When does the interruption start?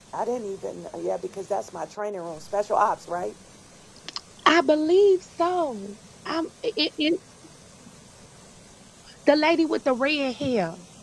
none

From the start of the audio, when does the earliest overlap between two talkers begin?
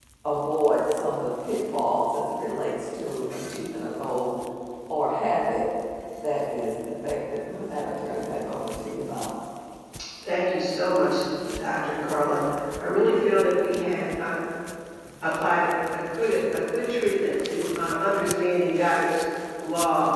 none

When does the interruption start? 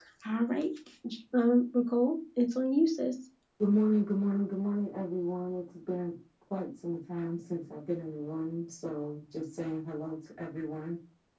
none

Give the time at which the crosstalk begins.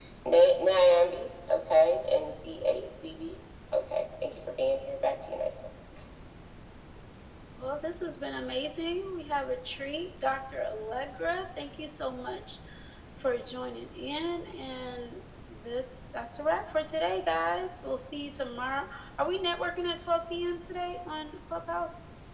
none

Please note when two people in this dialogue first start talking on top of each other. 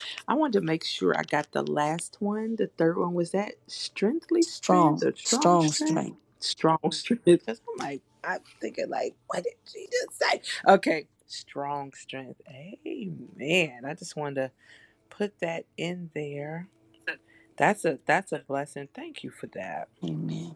4.6 s

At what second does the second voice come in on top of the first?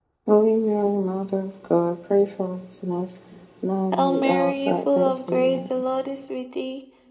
3.9 s

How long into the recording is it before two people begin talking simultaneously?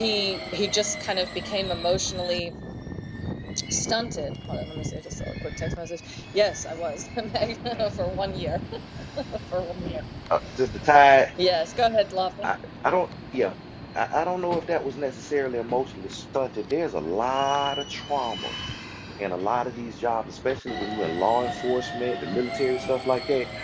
none

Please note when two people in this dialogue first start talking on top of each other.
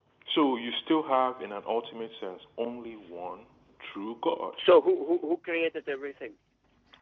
none

